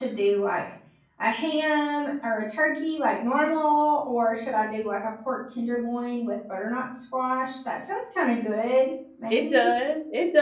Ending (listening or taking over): taking over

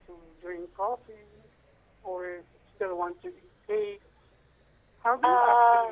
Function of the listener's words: listening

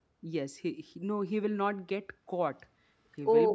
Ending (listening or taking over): listening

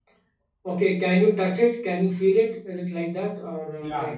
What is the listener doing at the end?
taking over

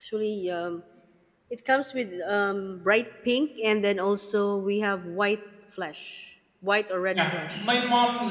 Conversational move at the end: taking over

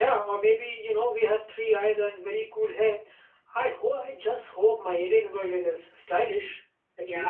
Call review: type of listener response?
taking over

